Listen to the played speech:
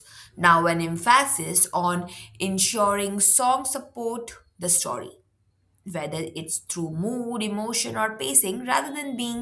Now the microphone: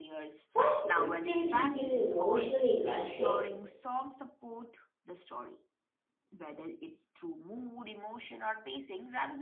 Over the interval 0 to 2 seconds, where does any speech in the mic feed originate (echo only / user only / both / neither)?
both